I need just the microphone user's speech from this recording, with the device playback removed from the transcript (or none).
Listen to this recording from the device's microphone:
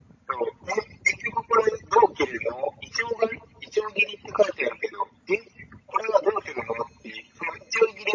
none